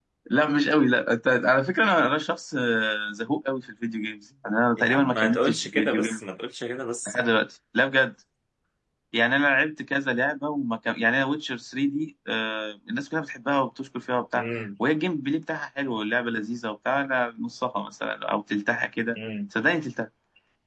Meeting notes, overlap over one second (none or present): present